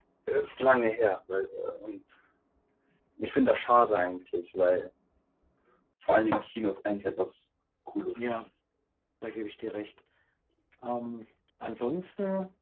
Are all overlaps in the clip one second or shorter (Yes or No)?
Yes